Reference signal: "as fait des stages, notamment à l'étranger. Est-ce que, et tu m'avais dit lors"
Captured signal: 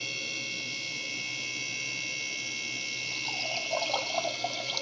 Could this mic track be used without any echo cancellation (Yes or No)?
Yes